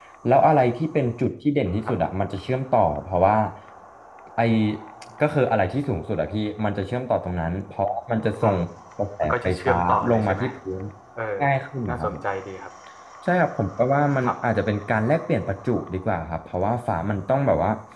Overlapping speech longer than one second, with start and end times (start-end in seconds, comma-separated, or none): 9.2-10.4